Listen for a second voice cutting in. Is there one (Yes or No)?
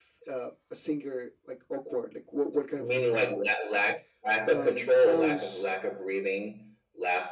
Yes